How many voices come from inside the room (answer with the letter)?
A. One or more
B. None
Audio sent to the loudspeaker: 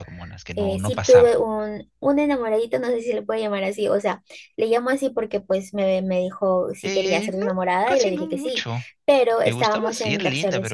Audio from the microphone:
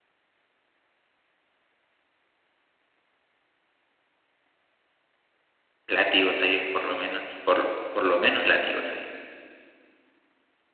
A